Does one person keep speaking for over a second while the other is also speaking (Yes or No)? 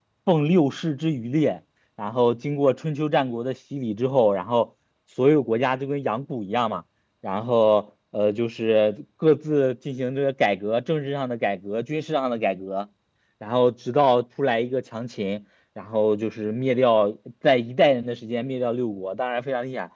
No